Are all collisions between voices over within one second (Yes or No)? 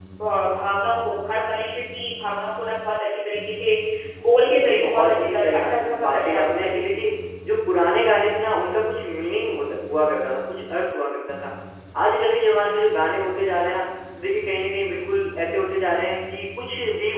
No